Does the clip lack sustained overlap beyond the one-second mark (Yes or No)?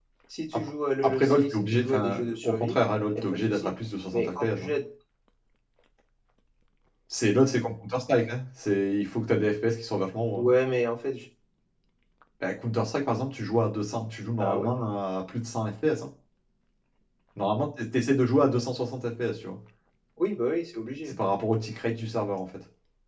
No